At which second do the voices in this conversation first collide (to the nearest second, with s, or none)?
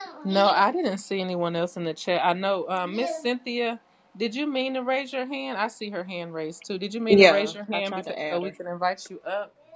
7 s